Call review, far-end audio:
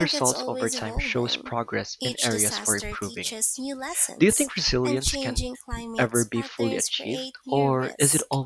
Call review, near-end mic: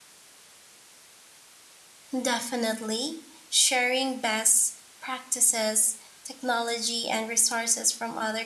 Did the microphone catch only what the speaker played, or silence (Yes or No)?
No